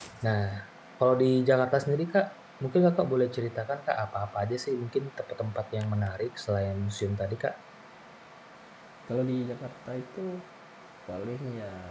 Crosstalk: none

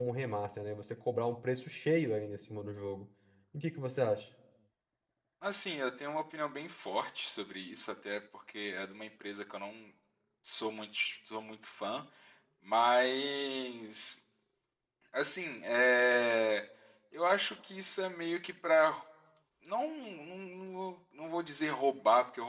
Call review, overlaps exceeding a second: none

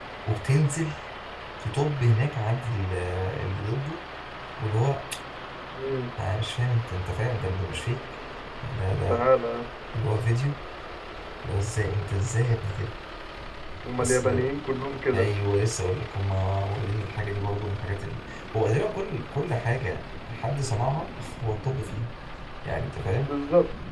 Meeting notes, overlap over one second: none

